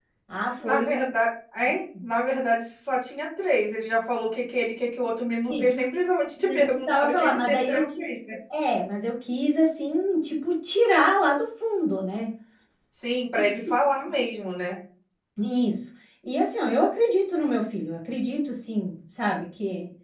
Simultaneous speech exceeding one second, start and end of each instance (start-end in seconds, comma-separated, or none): 6.4-7.8